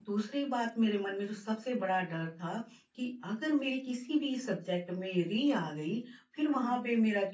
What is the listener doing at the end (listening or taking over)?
listening